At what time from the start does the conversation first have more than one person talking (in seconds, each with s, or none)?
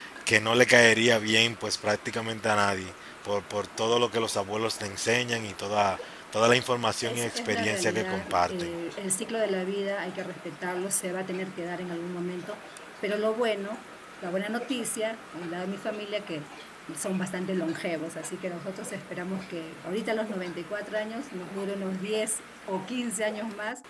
7.0 s